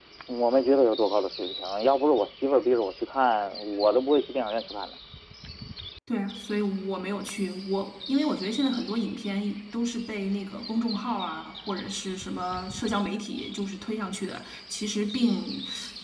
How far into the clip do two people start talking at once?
none

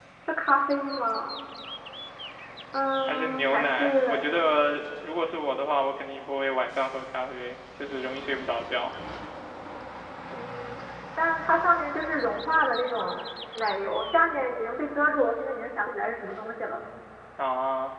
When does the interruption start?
3.0 s

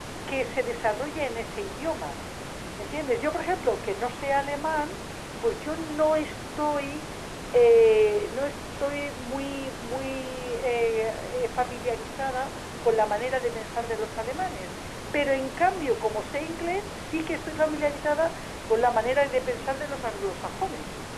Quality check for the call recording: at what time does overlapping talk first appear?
none

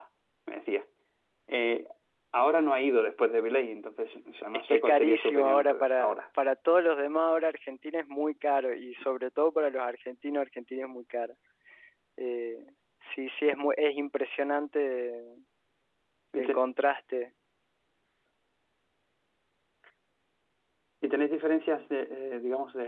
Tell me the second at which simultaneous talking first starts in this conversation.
4.7 s

